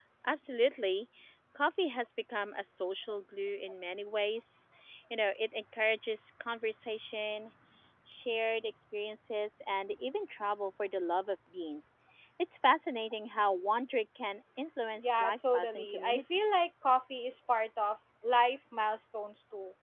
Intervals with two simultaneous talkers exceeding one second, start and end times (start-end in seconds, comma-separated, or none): 15.0-16.7